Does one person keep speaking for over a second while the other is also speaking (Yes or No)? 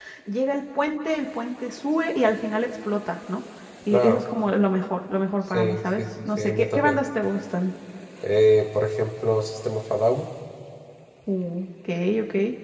Yes